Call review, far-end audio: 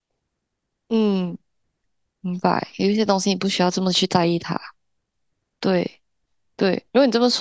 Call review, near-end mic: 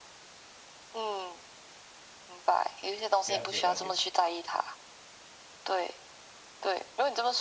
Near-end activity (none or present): present